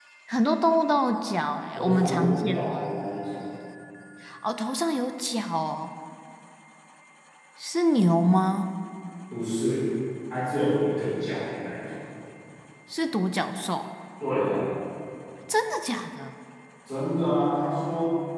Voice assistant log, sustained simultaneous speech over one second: present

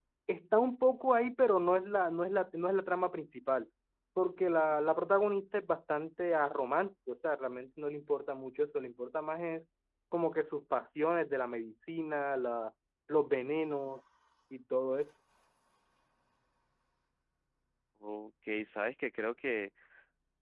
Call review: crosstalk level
none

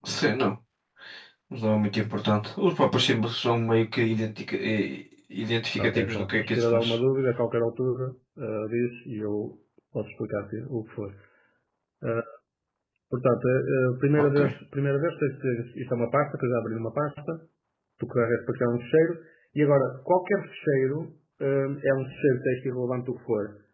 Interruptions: present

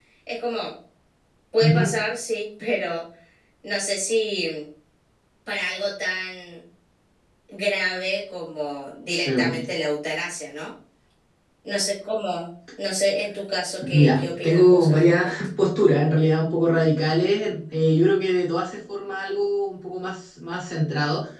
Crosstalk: present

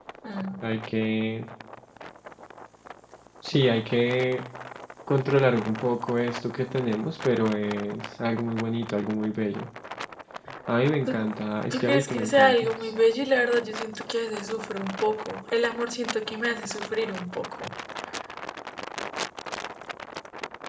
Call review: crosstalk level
present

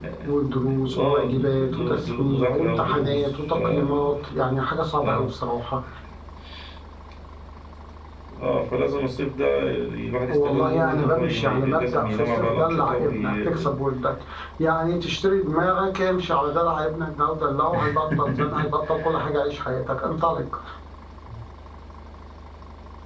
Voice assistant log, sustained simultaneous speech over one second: present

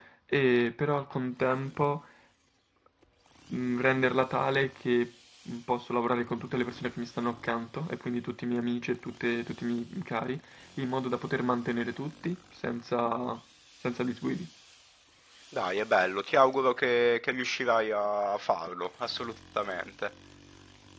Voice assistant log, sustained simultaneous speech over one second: none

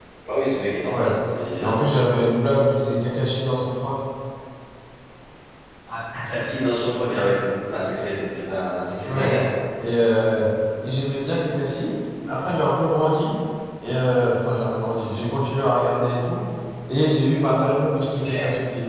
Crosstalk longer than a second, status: none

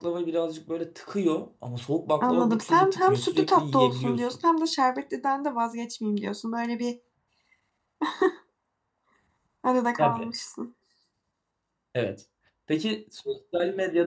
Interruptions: present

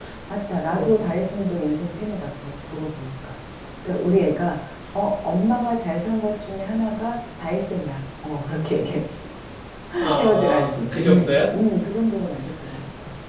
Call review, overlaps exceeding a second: present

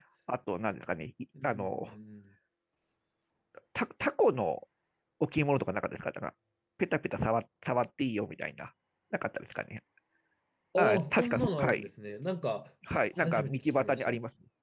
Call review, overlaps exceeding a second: present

